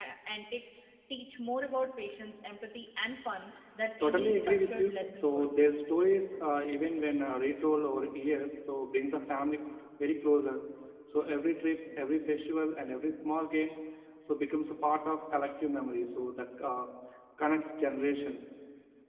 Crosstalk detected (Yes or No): Yes